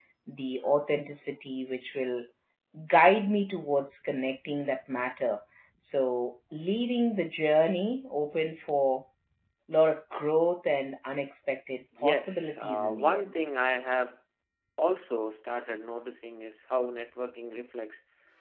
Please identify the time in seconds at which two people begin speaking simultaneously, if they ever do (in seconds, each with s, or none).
11.8 s